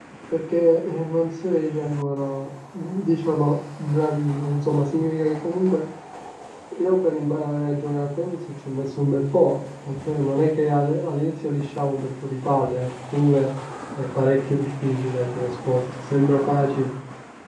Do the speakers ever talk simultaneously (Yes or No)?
No